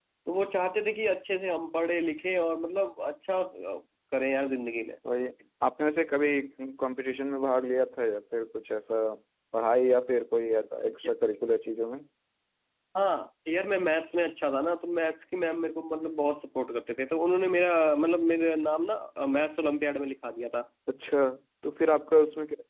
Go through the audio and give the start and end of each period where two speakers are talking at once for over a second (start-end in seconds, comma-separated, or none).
none